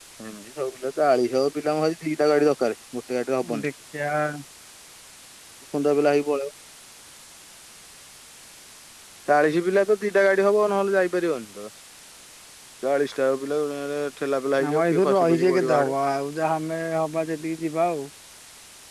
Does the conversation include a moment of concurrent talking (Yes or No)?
Yes